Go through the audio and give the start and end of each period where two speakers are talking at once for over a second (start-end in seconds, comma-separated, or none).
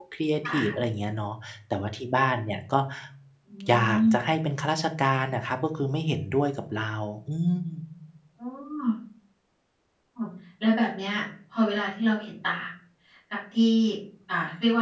none